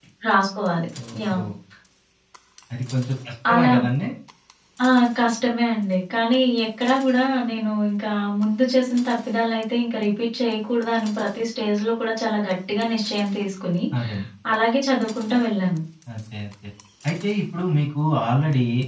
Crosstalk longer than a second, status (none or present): none